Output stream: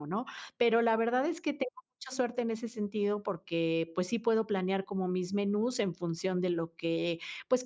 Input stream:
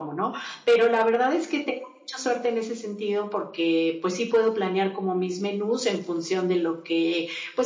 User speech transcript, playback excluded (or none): none